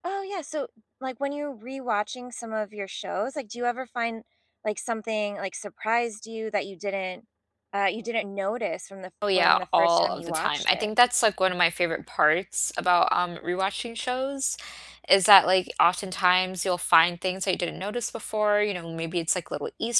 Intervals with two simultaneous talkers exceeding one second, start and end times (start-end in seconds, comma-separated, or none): 9.3-10.9